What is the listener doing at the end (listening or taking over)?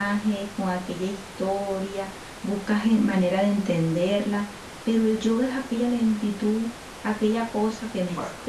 taking over